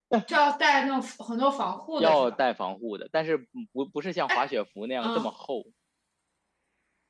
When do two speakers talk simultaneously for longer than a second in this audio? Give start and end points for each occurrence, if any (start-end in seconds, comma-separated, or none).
none